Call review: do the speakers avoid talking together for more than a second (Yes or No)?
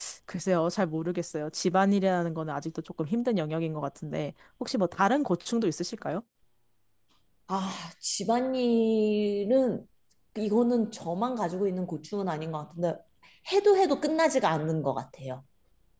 Yes